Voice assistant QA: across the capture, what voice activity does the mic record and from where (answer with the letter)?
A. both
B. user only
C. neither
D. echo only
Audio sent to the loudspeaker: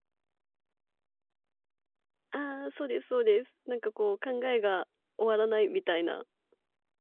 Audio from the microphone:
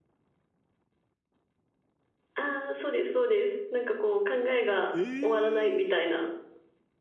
A